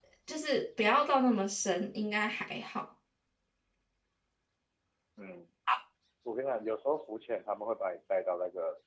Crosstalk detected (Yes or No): No